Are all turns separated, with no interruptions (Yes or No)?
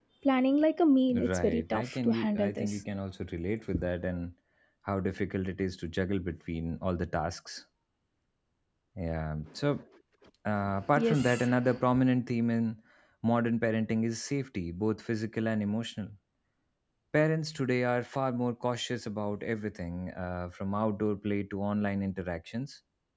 No